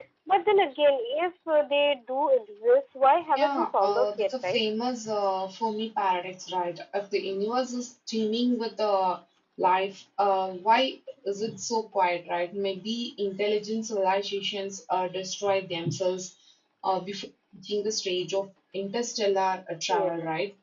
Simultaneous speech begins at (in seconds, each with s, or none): 3.4 s